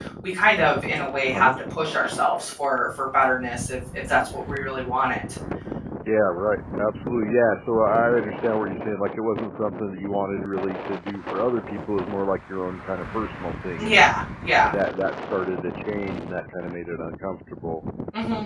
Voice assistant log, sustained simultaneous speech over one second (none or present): none